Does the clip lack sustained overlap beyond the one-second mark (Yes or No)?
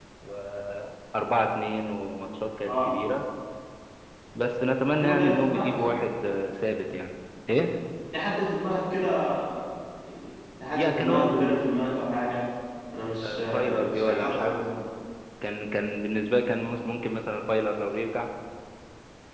No